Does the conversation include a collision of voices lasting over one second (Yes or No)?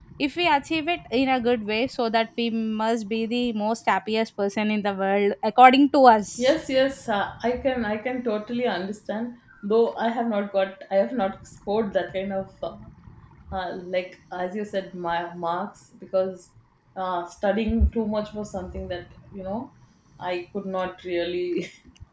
No